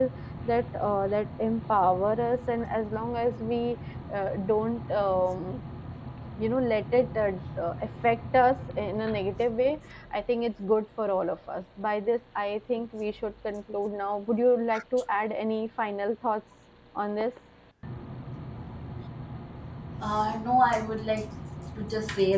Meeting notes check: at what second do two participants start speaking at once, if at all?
none

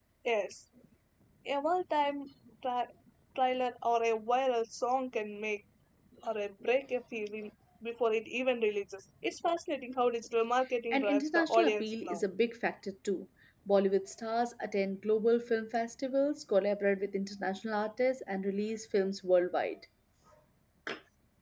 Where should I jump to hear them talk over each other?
11 s

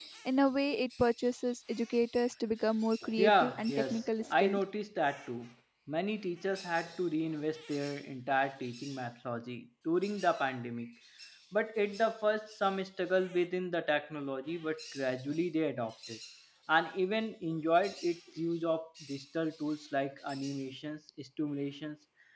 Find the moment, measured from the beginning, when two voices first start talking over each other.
3 s

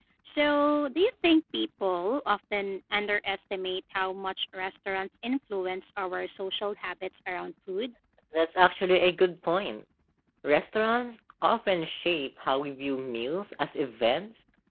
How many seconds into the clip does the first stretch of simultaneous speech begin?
none

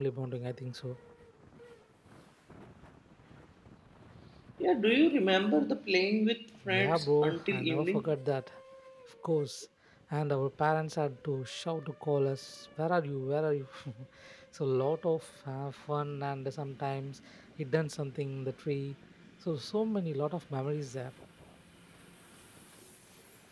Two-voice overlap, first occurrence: 7 s

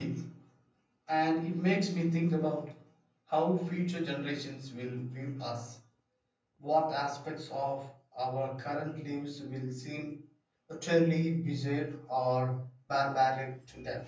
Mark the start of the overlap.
none

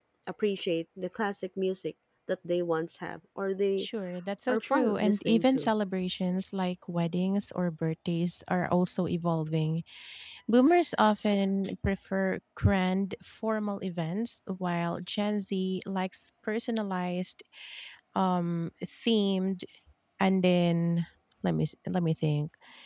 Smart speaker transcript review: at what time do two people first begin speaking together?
4 s

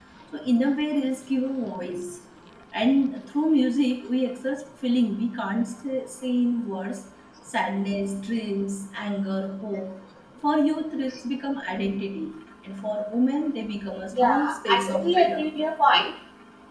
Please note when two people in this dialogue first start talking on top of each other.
14 s

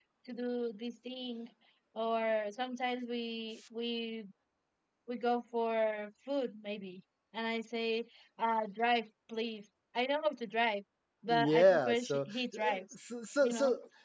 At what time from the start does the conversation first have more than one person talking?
11 s

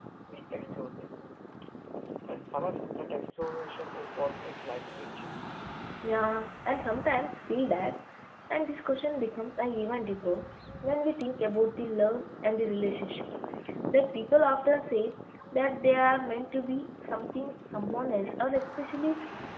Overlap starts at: none

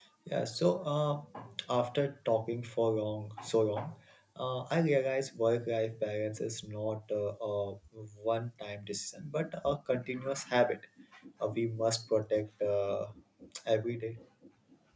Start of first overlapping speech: none

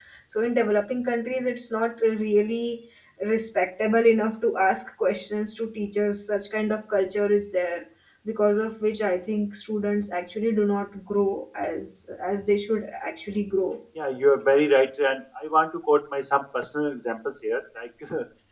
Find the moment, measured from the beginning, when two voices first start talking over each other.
none

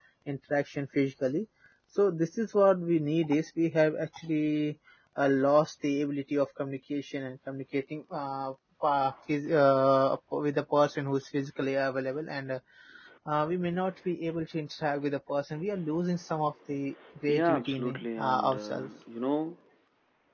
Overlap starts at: 17 s

